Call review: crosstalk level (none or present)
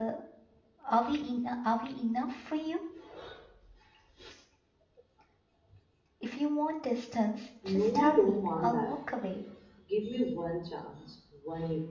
present